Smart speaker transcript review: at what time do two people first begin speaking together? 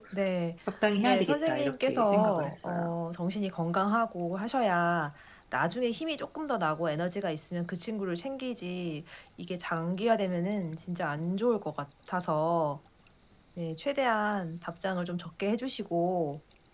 1.0 s

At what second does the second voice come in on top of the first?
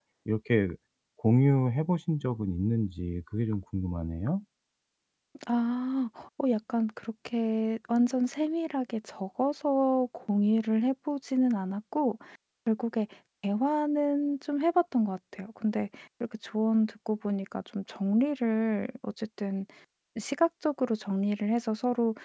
none

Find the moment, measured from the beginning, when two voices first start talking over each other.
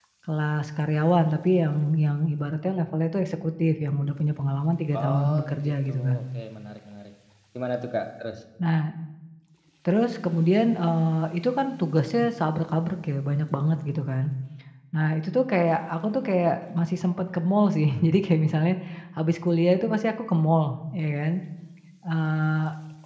4.9 s

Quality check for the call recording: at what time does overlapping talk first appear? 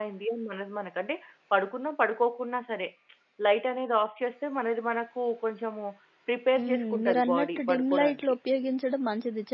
6.6 s

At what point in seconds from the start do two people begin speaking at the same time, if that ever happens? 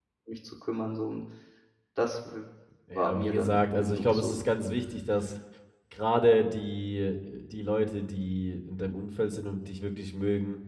3.0 s

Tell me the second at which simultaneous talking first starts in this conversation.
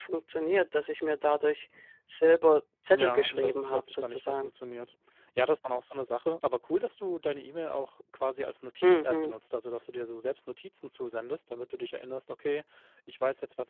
2.9 s

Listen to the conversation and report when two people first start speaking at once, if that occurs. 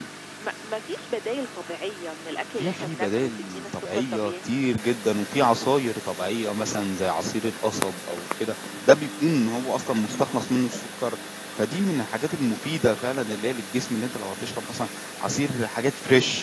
2.6 s

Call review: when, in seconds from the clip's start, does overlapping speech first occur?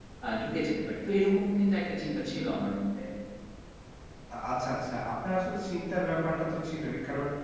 none

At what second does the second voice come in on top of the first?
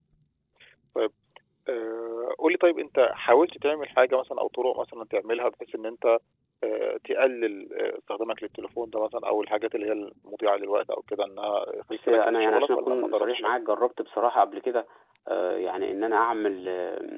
11.9 s

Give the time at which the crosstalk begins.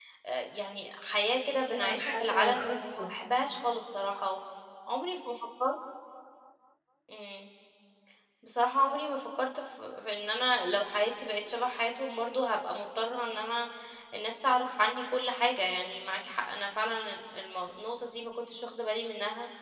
1.7 s

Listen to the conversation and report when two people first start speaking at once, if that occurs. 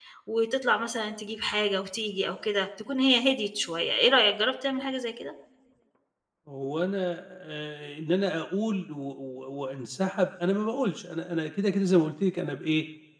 none

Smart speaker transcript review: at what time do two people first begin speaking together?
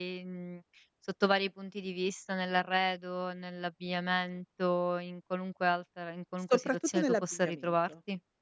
6.5 s

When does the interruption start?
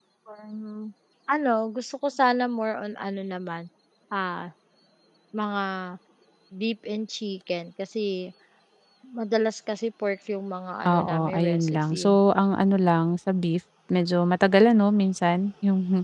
10.8 s

